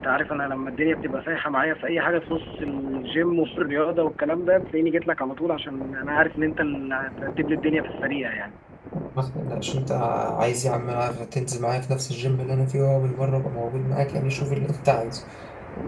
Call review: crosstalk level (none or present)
none